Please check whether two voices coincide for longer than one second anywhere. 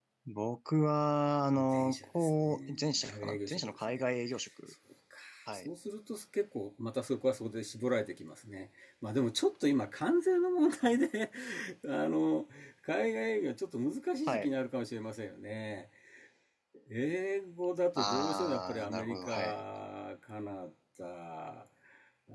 Yes, from 1.7 s

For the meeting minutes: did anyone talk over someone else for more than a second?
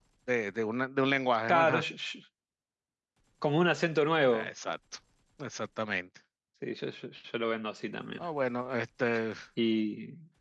No

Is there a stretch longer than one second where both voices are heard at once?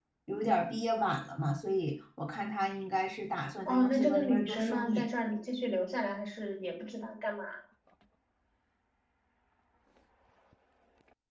Yes, from 3.6 s

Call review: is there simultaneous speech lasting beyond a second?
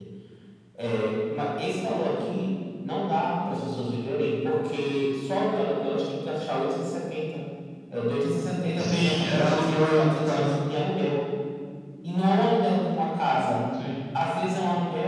Yes, from 8.8 s

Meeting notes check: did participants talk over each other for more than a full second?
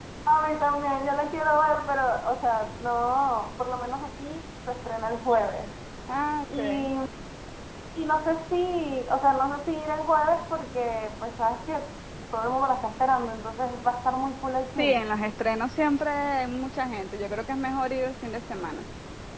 No

